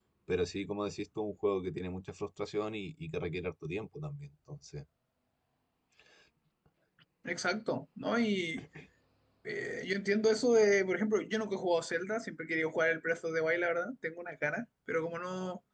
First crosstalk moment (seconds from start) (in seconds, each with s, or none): none